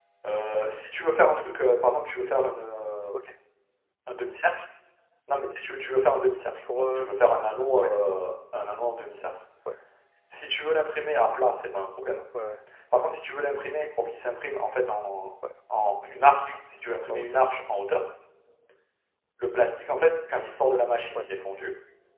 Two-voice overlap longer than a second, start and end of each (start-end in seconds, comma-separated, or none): none